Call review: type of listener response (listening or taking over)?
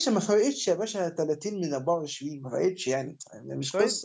taking over